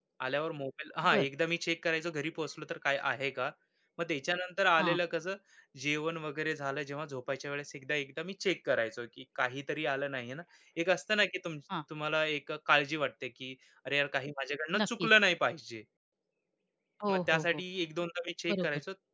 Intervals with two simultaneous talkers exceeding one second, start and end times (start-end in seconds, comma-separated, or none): none